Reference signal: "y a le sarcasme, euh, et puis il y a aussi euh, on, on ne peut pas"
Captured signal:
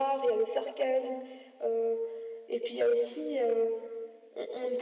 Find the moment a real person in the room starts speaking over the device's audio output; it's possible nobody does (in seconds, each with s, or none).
none